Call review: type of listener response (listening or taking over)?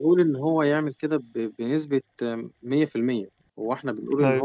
listening